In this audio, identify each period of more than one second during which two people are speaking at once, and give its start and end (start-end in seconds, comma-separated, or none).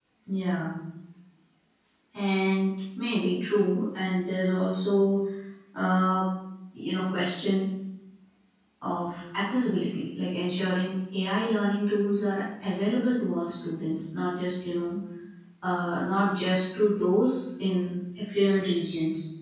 none